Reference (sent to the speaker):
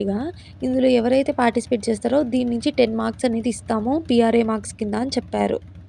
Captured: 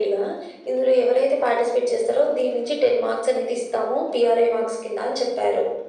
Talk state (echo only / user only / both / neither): echo only